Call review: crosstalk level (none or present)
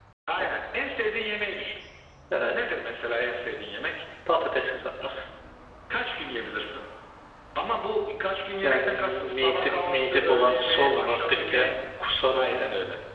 present